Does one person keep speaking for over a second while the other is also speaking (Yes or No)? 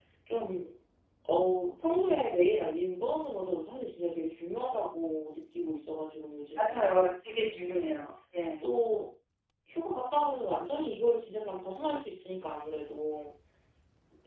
No